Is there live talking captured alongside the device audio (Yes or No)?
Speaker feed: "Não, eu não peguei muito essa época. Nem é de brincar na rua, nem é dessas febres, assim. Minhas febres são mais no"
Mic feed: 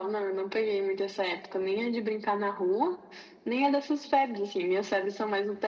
No